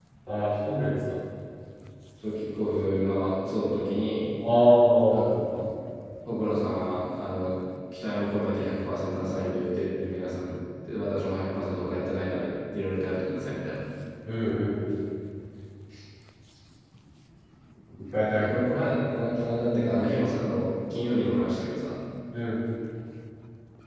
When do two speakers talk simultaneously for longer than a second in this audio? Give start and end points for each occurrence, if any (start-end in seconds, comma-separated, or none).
none